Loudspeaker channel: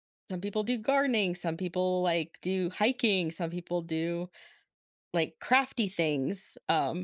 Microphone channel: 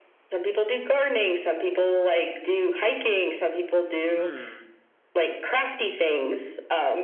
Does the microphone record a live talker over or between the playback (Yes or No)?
Yes